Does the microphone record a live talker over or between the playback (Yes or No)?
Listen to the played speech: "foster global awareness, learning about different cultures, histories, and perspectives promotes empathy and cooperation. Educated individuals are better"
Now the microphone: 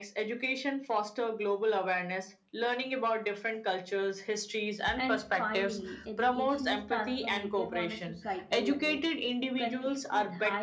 Yes